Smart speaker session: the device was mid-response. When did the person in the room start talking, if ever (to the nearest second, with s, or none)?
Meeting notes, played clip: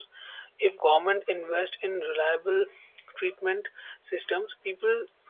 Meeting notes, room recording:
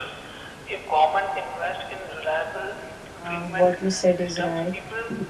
3 s